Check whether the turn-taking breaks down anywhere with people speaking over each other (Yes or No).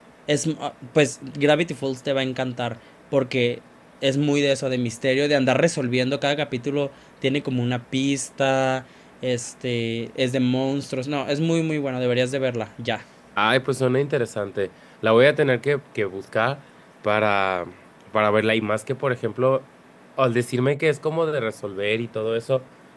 No